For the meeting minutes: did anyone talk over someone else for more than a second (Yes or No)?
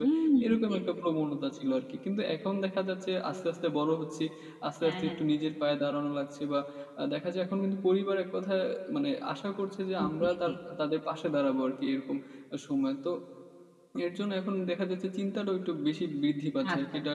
No